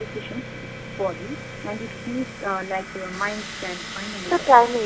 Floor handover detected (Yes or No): Yes